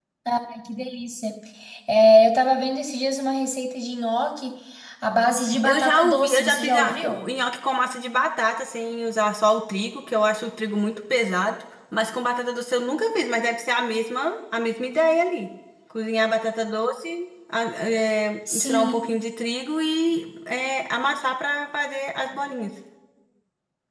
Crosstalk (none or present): present